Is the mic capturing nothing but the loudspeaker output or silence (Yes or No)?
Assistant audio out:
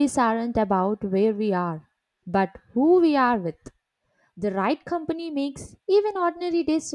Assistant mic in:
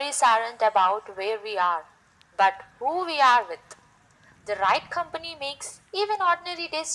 Yes